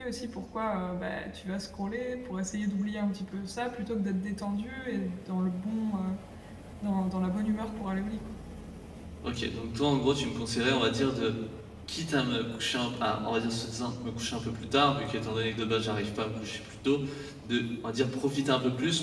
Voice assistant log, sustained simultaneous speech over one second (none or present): none